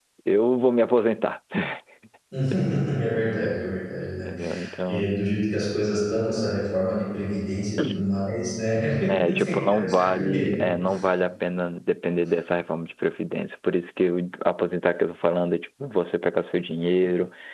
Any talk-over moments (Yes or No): Yes